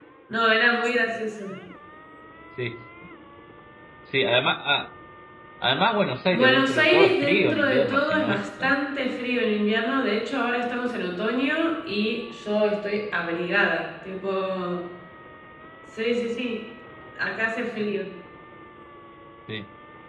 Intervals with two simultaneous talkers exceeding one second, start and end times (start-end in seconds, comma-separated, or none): 6.3-8.7